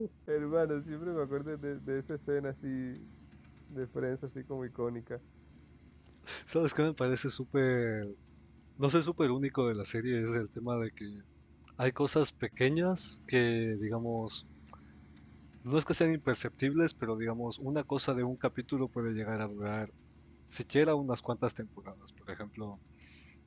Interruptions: none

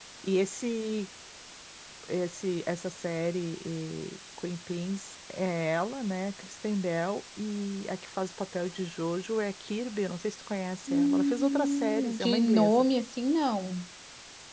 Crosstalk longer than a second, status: present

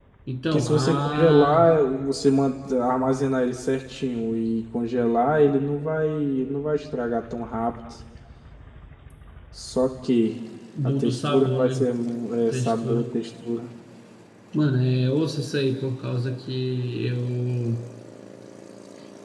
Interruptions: present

